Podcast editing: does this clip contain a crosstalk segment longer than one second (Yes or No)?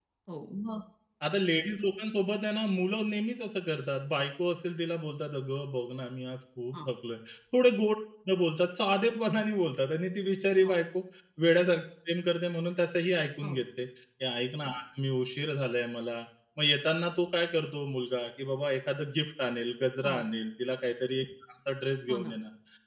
No